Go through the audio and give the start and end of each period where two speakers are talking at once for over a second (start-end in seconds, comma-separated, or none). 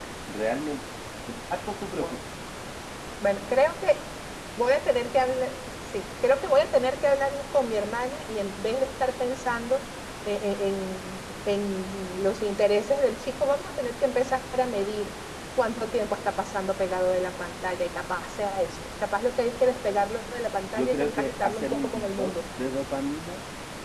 20.8-22.4